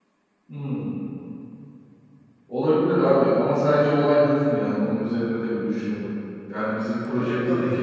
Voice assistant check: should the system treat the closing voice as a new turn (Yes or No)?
No